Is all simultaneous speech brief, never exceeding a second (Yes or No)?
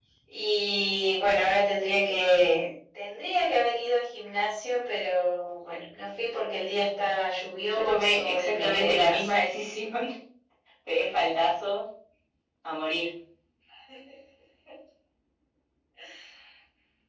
No